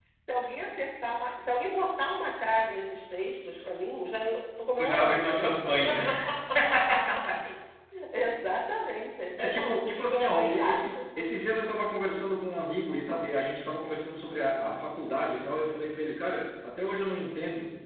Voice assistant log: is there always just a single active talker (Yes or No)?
No